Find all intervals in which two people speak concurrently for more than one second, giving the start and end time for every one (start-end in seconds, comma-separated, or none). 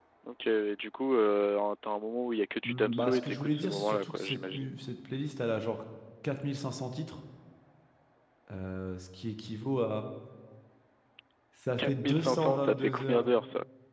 2.6-4.7, 11.8-13.2